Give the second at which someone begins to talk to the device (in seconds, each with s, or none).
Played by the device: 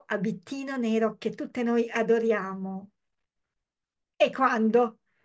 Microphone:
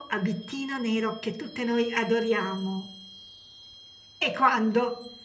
none